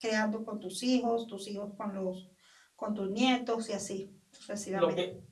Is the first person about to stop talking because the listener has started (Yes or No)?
Yes